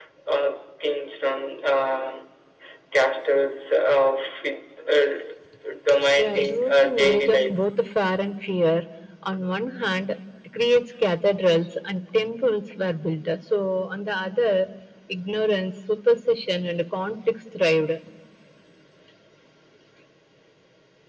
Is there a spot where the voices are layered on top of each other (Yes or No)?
Yes